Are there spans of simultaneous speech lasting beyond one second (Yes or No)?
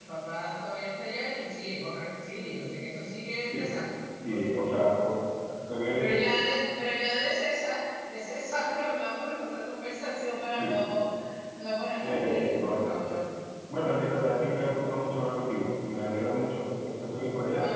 Yes